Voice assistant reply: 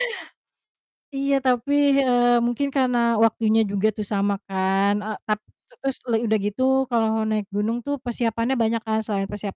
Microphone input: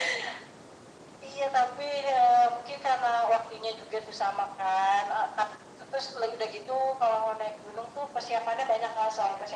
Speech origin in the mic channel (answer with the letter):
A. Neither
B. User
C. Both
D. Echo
D